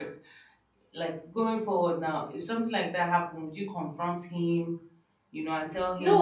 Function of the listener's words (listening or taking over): taking over